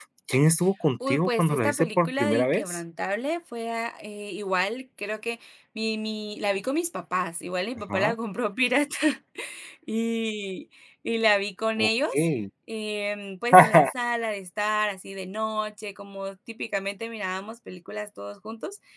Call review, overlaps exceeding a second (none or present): present